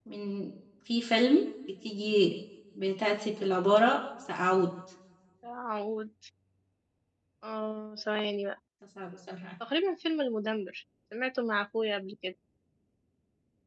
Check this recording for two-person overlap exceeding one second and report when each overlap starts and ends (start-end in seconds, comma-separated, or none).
none